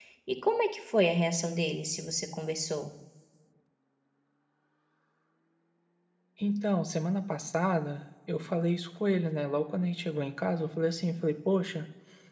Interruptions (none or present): none